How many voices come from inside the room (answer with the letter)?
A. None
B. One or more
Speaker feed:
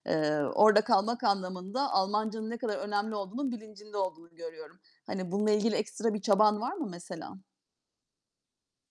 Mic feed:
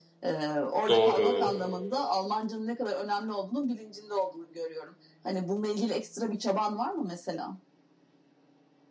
B